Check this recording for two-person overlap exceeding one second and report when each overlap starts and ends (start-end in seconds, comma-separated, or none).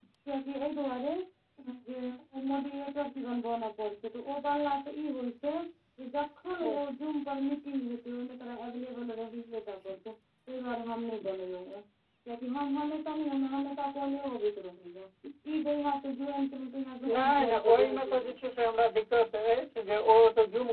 17.0-18.4